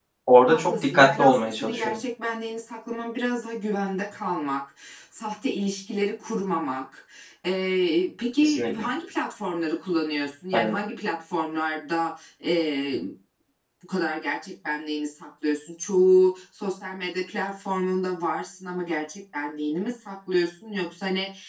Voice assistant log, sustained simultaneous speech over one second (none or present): present